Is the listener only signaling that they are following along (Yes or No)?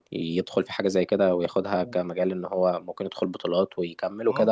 No